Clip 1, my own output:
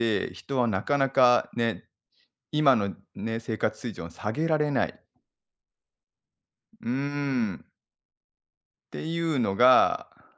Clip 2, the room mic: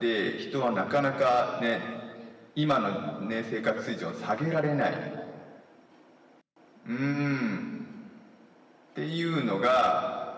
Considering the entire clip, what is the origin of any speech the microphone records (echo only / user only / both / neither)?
echo only